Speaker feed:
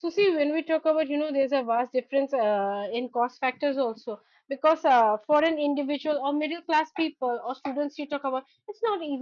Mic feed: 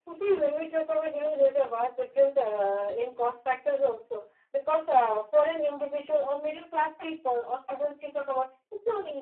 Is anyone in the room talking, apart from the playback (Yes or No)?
No